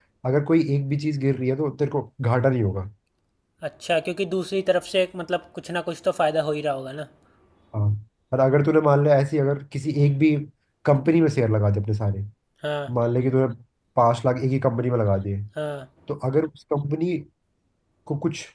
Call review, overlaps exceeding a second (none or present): none